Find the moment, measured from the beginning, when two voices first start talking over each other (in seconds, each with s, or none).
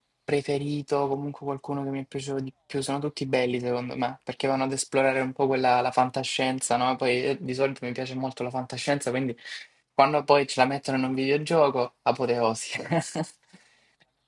none